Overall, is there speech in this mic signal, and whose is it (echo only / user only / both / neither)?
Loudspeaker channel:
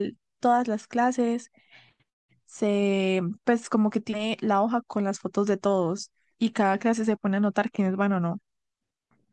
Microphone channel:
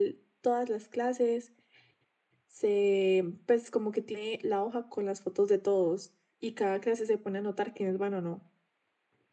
echo only